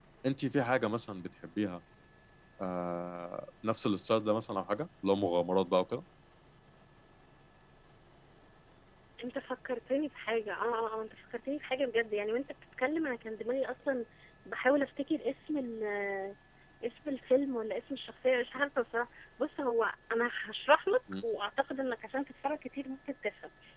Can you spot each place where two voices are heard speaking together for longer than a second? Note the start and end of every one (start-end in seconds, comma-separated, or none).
none